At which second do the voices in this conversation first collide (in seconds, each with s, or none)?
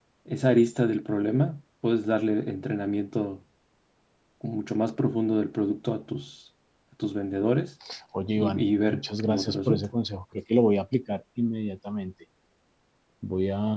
8.4 s